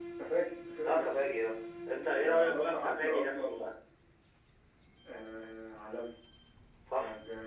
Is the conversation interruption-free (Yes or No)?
No